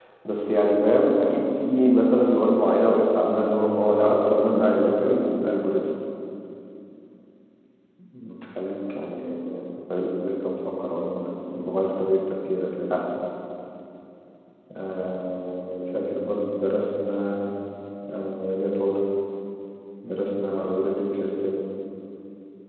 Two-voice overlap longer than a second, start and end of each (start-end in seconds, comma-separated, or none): 3.2-5.2